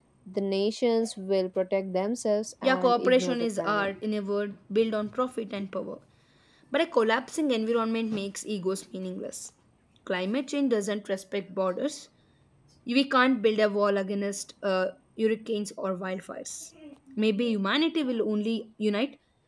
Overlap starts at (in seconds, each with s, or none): 2.6 s